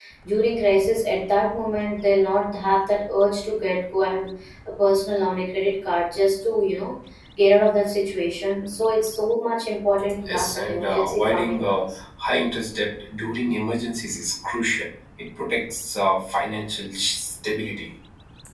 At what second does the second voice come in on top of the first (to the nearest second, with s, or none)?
10 s